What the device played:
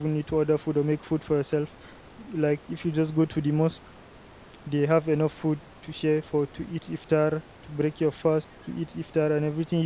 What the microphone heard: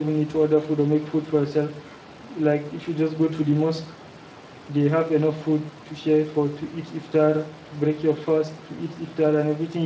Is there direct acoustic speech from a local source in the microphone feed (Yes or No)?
No